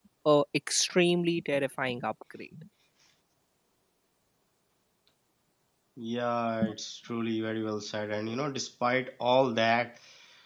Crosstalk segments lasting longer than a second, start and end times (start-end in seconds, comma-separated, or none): none